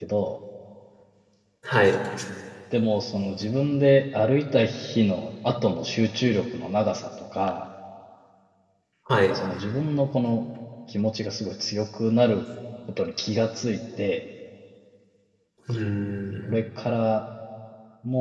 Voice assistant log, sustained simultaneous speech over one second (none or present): none